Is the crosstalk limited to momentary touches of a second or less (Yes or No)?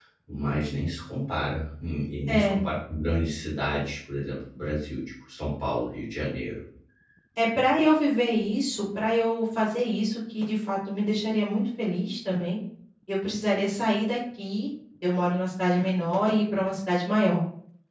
Yes